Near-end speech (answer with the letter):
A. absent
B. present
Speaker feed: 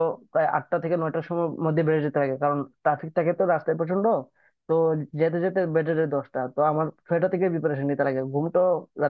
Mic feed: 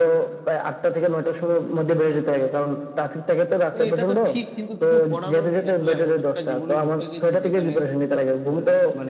B